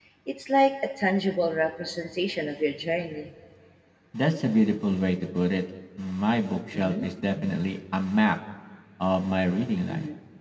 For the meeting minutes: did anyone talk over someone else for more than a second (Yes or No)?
No